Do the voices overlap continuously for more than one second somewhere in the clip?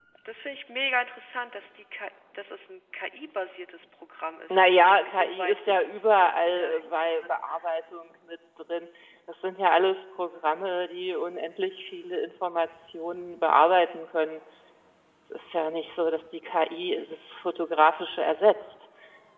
Yes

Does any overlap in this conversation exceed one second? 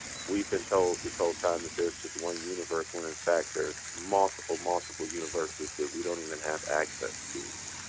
No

